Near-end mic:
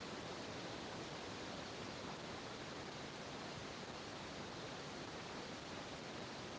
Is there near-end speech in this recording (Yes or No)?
No